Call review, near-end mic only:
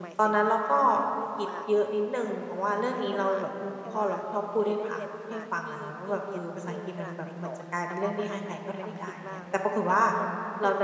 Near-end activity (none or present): present